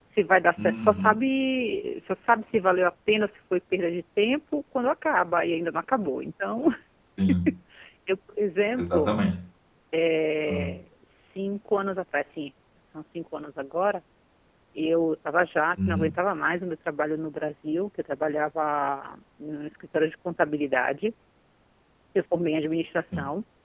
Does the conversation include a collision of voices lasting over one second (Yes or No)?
No